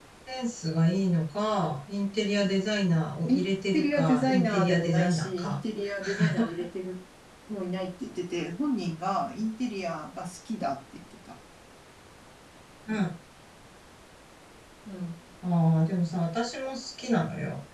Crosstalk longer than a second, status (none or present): present